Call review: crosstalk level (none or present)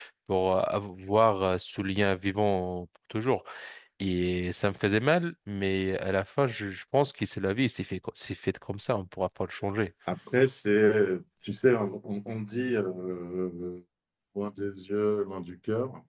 none